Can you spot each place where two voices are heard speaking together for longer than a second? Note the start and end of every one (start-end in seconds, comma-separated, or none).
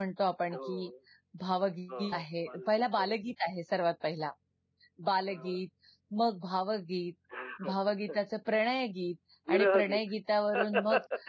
1.9-3.1